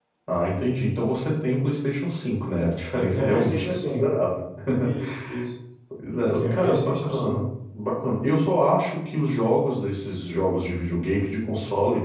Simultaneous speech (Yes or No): Yes